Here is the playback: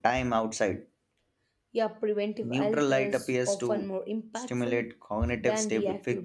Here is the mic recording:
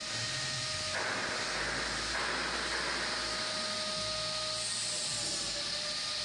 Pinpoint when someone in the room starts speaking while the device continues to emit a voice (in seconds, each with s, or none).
none